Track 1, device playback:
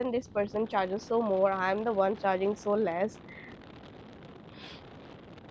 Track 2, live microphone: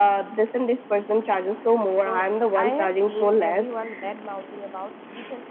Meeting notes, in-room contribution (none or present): present